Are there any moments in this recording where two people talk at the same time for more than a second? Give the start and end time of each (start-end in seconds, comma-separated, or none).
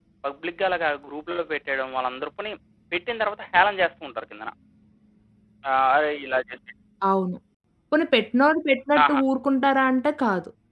none